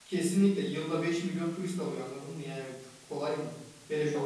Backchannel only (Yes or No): Yes